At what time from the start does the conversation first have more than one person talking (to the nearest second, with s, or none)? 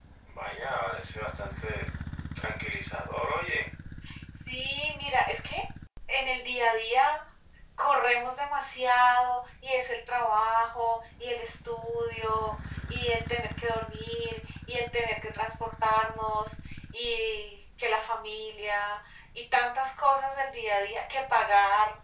none